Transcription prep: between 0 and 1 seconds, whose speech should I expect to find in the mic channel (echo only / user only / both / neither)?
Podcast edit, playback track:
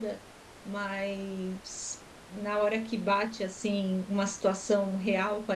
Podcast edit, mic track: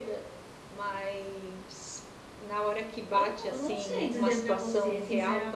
echo only